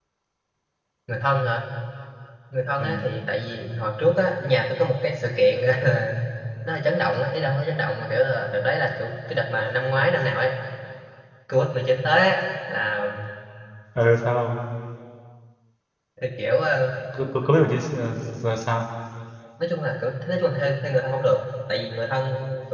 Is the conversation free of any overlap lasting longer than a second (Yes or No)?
Yes